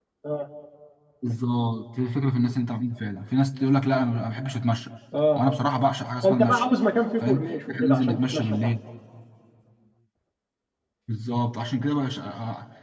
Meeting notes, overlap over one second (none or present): present